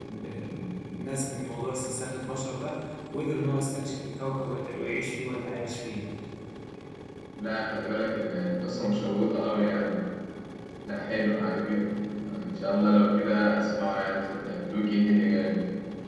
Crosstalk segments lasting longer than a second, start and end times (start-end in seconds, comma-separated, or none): none